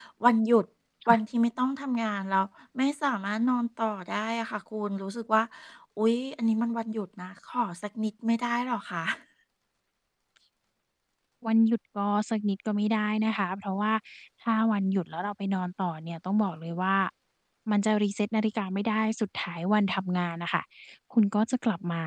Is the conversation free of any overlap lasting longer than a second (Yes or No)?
Yes